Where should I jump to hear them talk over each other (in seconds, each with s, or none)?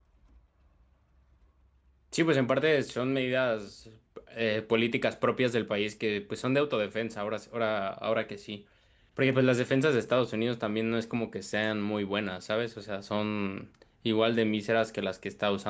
none